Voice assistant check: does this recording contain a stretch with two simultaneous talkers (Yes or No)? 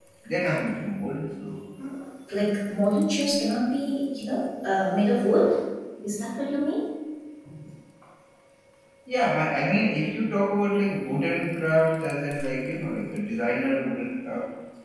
No